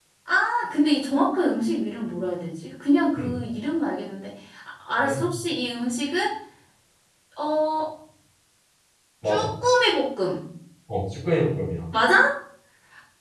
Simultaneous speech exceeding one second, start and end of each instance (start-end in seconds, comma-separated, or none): none